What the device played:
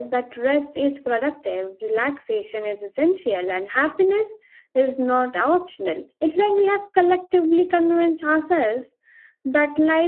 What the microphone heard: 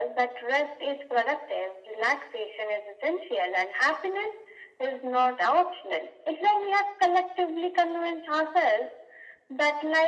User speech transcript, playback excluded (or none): none